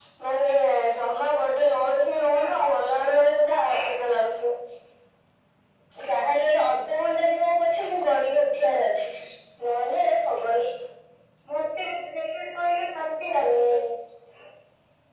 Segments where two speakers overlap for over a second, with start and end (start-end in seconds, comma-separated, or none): none